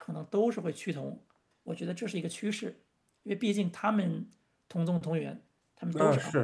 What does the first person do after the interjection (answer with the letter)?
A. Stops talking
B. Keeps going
A